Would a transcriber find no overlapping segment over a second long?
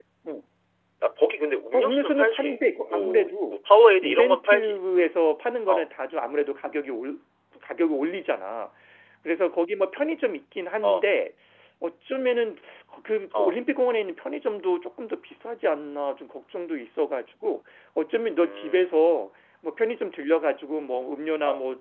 No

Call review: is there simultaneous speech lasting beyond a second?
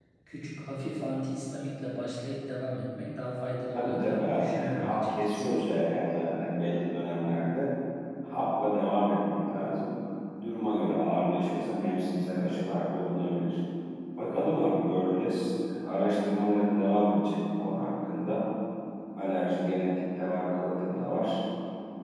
Yes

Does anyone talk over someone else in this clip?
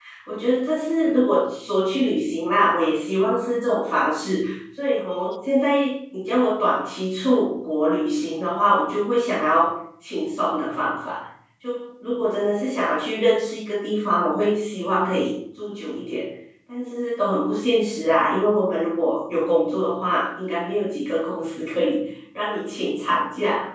No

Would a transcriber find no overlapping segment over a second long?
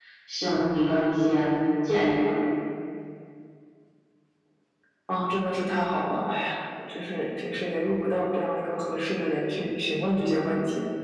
Yes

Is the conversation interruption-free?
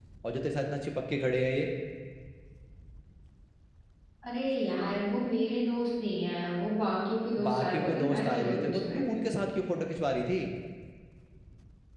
No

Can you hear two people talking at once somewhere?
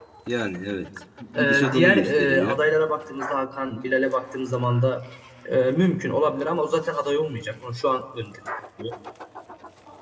Yes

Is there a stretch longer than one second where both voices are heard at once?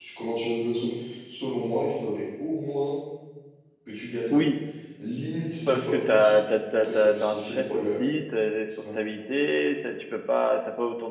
Yes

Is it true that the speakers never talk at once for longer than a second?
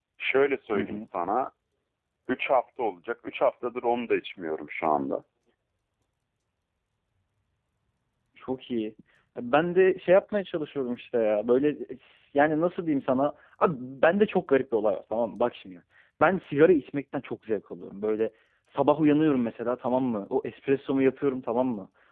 Yes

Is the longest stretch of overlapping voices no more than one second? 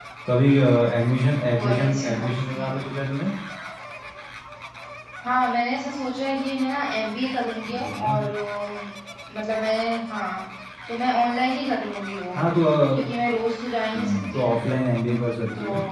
No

